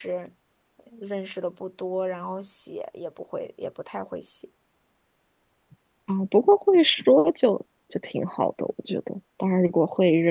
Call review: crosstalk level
none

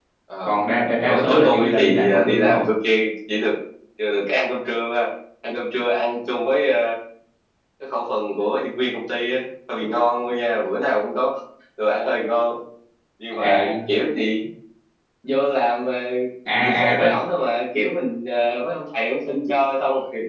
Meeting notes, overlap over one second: present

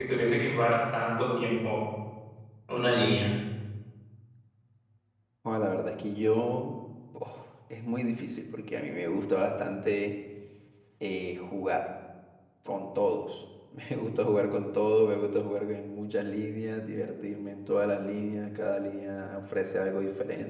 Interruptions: none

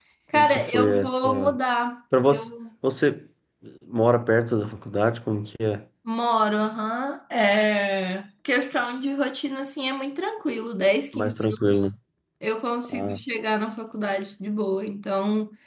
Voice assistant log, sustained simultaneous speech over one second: present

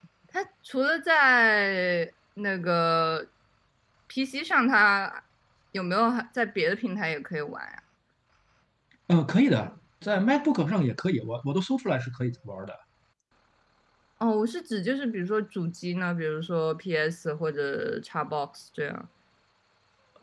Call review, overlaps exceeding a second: none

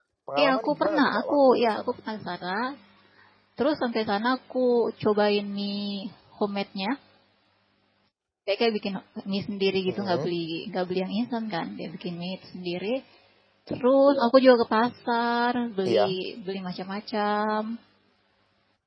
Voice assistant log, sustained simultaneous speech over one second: present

